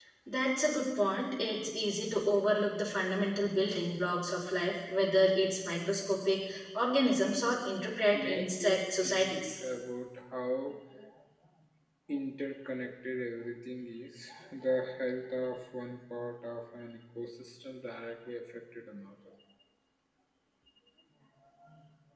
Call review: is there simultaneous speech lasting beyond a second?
Yes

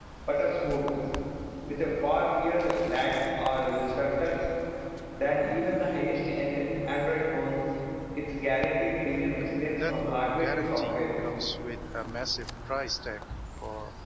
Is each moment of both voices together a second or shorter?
No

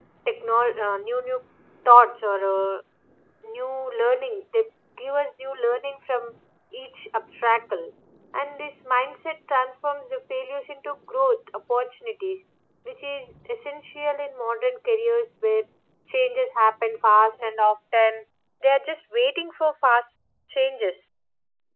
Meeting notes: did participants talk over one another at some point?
No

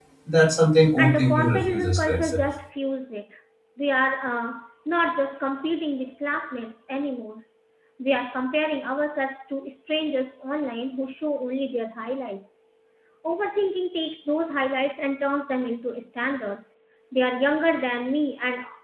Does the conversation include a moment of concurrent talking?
Yes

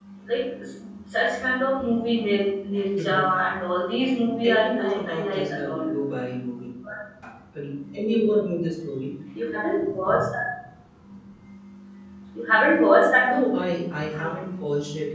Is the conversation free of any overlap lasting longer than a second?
No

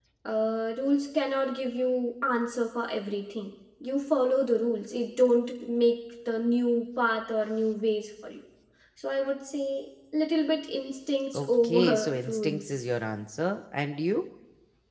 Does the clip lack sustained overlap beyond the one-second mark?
No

